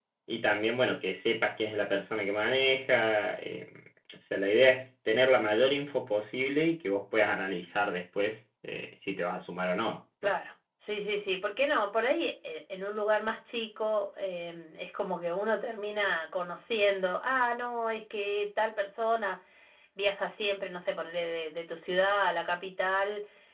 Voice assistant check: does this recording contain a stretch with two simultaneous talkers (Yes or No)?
No